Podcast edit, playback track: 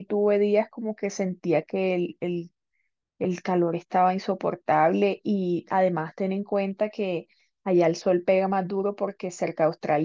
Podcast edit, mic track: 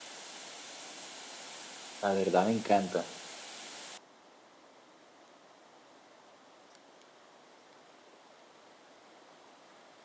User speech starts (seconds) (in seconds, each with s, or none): 2.0 s